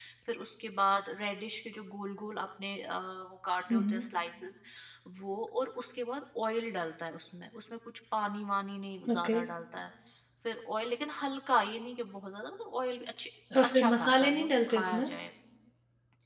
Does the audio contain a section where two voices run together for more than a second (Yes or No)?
Yes